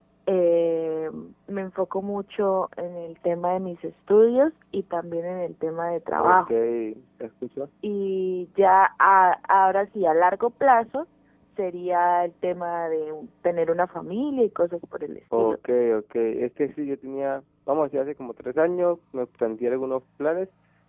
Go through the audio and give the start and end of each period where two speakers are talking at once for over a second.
none

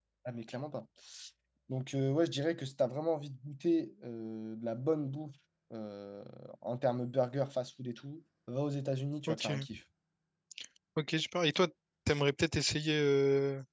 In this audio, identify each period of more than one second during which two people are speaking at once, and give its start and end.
none

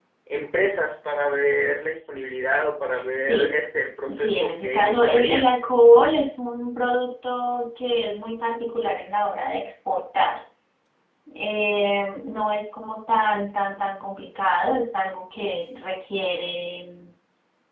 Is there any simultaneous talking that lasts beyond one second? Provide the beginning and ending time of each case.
4.1-5.5

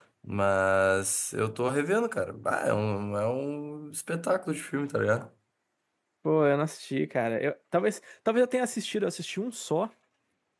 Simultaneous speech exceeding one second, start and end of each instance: none

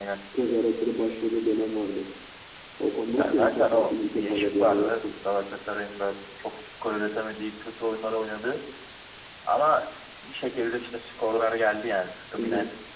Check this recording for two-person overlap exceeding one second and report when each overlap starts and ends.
3.2-5.0

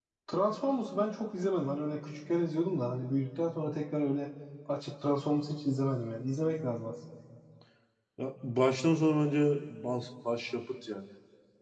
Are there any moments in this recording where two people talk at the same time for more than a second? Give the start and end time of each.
none

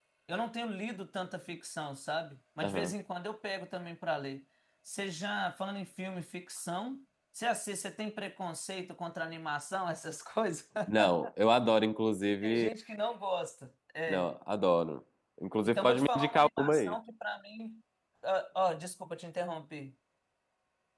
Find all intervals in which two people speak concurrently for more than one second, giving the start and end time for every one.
15.6-17.0

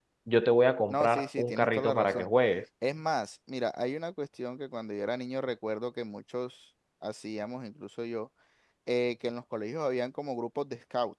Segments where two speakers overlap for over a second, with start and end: 0.9-2.3

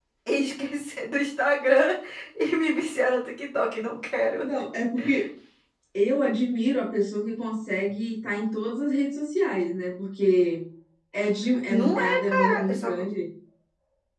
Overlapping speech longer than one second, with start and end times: 11.7-12.9

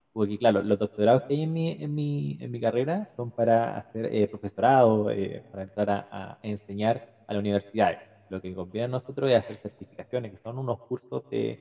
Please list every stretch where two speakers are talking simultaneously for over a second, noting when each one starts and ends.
none

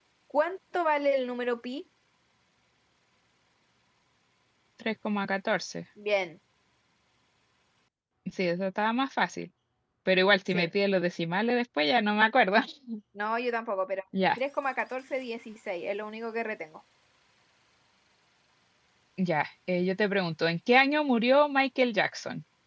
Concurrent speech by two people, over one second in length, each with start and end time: none

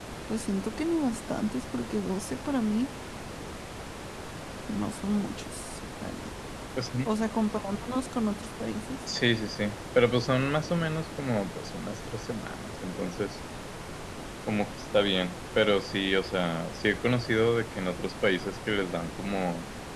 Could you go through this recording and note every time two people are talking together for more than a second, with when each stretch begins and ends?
none

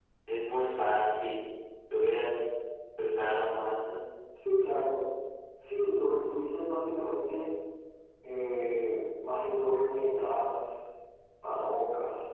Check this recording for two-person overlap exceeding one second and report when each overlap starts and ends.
none

